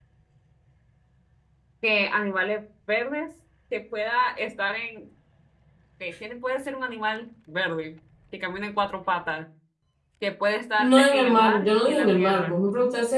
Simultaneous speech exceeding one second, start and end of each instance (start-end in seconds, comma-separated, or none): 10.8-12.5